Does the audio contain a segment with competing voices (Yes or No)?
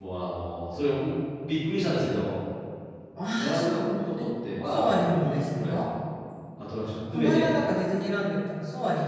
Yes